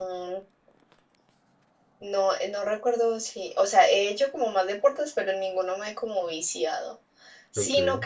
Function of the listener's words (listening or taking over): listening